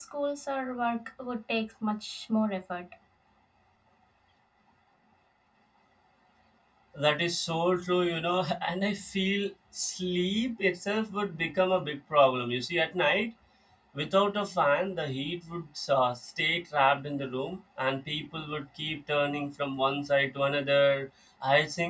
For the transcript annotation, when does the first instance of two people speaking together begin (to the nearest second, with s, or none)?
none